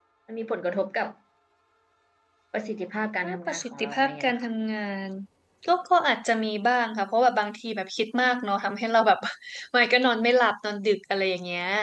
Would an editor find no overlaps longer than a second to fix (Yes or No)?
No